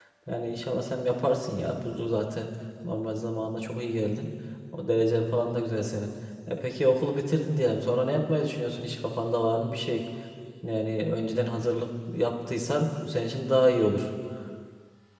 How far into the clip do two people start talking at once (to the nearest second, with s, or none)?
none